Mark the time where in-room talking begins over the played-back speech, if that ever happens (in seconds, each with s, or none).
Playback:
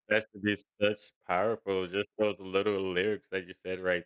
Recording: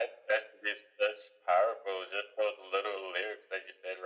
none